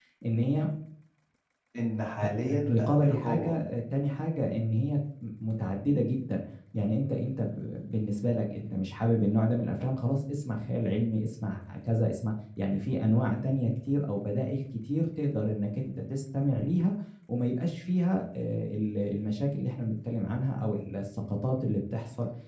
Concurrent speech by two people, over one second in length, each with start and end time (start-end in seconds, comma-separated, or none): 2.4-3.6